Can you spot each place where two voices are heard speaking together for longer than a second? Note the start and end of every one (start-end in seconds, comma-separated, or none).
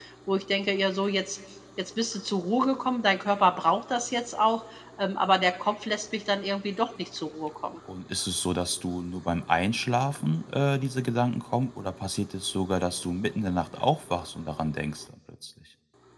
none